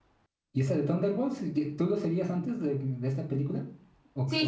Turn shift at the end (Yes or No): Yes